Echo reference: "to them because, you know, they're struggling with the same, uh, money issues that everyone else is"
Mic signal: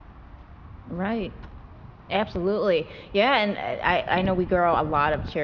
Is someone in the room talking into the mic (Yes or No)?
Yes